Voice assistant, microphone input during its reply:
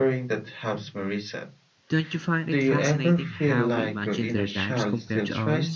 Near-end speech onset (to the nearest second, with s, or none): 2 s